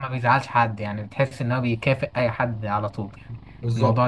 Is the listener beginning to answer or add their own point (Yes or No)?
Yes